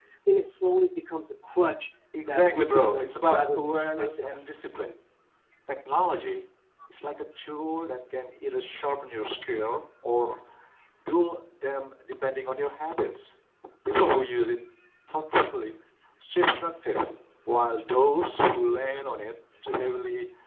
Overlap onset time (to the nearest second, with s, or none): 2 s